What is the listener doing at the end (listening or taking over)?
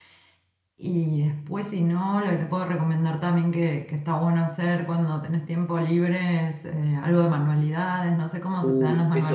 taking over